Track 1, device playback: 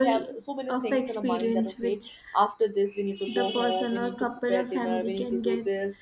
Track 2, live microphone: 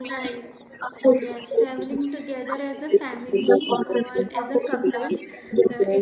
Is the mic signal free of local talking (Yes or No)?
No